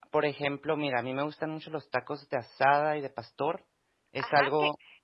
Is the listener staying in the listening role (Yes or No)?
No